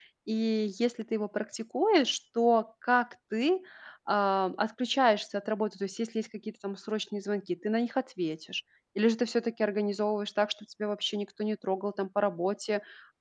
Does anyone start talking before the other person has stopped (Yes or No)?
No